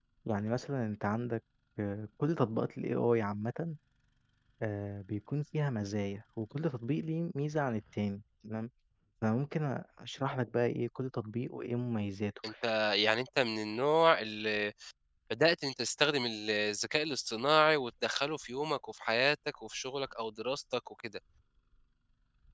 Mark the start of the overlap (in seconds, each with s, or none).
none